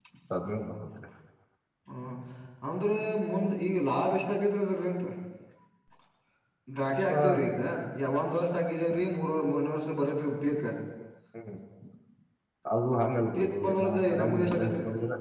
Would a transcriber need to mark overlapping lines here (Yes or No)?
Yes